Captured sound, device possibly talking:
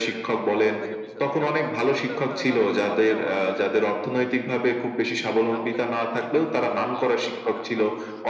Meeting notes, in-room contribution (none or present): present